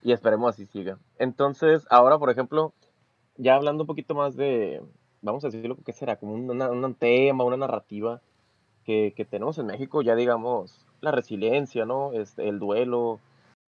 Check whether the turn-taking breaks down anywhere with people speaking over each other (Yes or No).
No